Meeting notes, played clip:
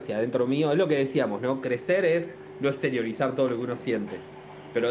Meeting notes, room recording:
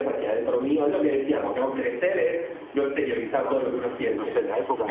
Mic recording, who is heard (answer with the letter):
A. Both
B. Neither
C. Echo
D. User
A